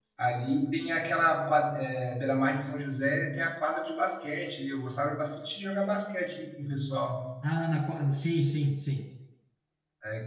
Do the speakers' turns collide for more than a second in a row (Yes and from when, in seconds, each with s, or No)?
No